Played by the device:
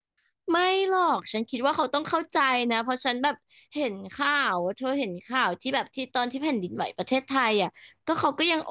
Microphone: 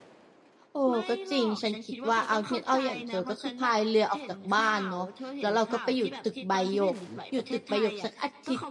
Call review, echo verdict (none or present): present